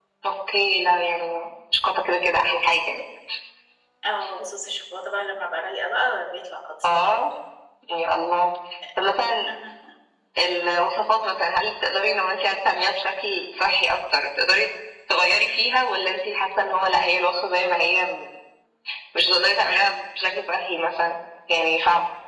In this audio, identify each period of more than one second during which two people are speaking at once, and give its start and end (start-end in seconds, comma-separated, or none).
none